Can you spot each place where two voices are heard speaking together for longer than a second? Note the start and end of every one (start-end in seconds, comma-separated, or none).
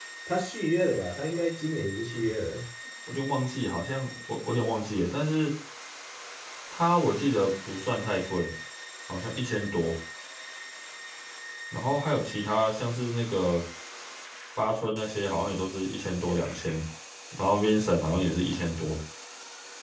none